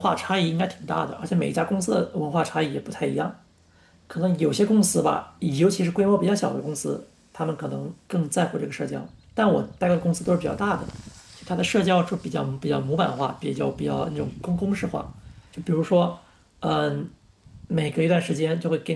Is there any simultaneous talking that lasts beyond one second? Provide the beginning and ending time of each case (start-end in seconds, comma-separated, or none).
none